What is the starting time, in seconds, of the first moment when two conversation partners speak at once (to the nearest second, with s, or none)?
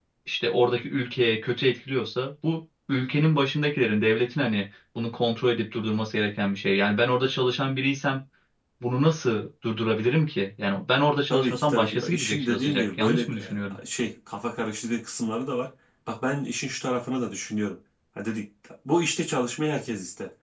11 s